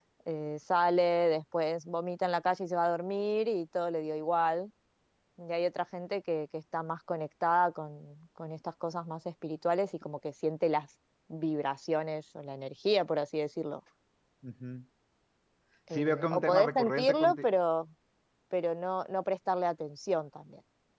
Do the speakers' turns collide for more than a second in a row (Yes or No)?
Yes